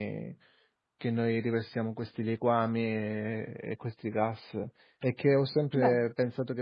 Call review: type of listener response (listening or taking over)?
listening